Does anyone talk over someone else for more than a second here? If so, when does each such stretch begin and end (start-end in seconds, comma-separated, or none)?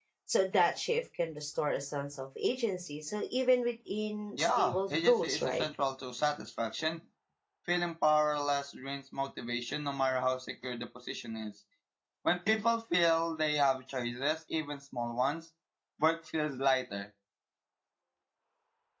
4.4-5.6